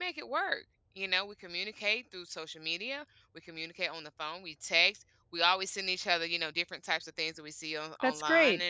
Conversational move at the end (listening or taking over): listening